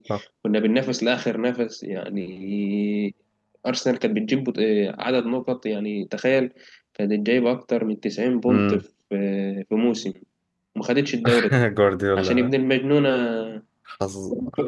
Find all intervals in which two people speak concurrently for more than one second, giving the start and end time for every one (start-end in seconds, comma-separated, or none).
none